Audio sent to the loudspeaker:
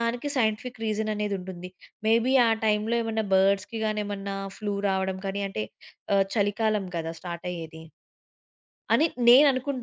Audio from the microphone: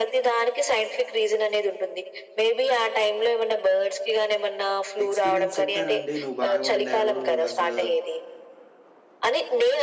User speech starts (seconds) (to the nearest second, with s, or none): 5 s